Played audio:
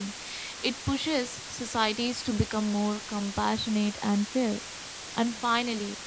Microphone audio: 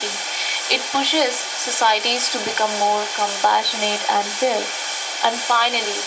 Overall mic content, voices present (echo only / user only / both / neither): echo only